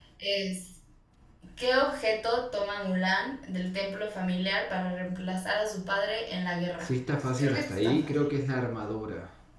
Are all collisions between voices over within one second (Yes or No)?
No